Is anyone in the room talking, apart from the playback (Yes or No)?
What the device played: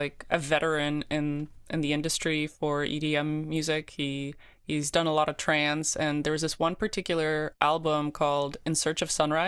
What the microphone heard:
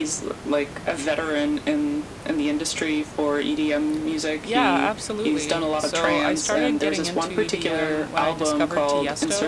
Yes